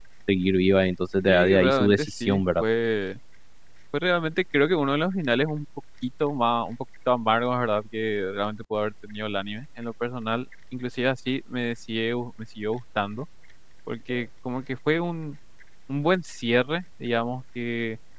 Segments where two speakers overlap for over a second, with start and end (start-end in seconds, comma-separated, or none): 1.3-2.6